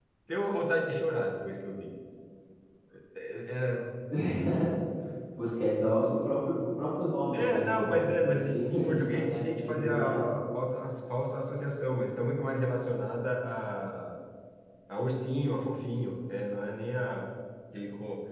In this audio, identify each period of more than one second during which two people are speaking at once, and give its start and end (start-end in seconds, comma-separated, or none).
7.3-10.3